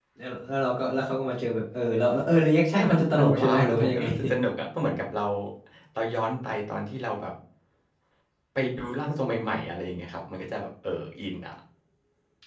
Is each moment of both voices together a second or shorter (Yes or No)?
No